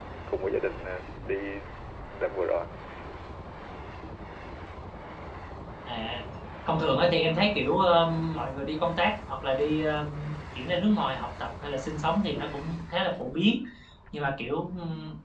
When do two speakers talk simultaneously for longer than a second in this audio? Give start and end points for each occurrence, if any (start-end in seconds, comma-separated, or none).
none